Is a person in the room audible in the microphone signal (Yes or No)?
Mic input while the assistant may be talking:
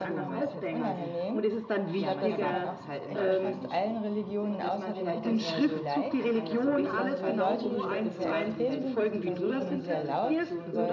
Yes